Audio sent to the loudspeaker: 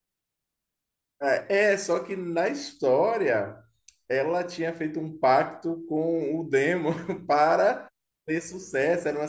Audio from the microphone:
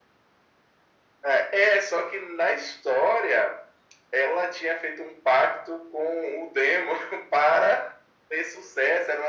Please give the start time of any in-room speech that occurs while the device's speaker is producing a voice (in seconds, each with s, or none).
none